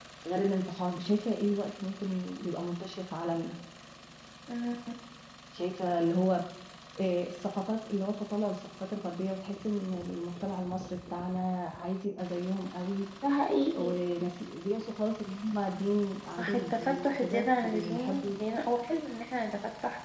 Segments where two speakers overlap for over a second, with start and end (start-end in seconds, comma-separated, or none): 16.4-18.4